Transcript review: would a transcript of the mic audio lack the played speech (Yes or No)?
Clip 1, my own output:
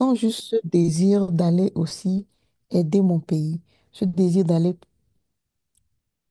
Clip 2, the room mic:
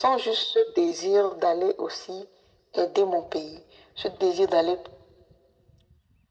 No